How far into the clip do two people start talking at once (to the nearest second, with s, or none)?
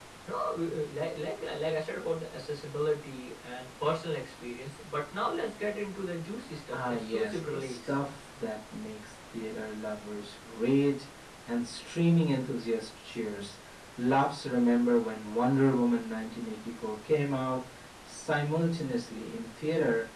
7 s